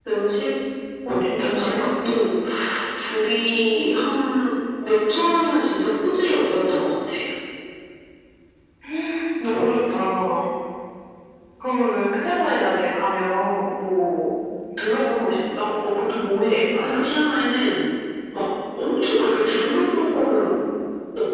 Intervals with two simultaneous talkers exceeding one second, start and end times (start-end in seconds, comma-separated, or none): 1.1-2.3